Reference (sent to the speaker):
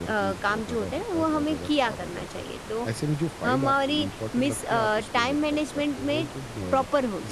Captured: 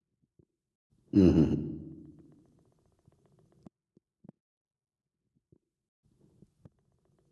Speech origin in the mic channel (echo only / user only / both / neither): user only